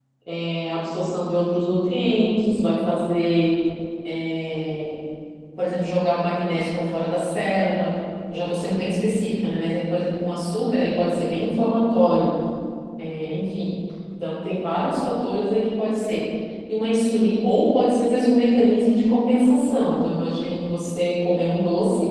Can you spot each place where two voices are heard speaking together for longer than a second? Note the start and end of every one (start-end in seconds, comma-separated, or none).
none